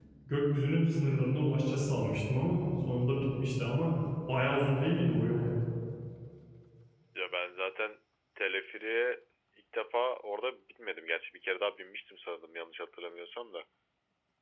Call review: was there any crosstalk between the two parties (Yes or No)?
No